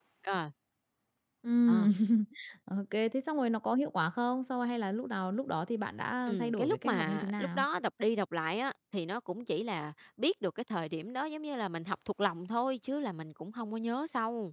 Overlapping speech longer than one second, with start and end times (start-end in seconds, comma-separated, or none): 6.3-7.6